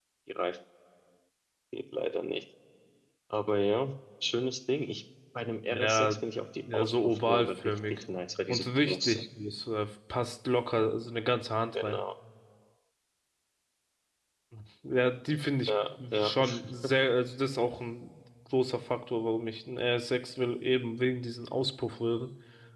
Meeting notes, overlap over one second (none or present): present